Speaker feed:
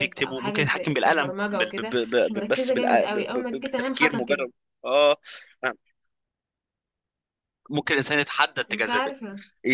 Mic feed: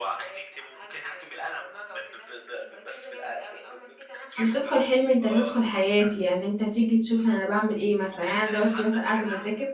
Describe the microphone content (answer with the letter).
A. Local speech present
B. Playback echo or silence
A